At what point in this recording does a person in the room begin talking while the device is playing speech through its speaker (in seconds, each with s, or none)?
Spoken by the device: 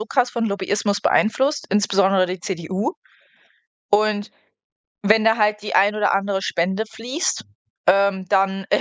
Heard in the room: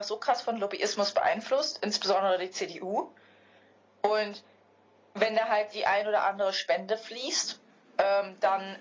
none